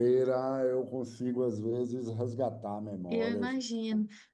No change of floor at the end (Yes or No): No